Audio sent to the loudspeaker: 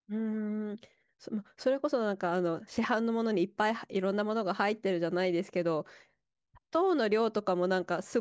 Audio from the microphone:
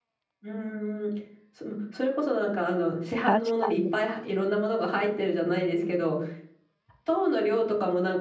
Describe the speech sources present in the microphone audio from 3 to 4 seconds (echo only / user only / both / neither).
both